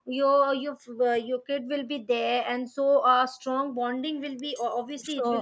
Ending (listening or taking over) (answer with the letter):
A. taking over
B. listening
A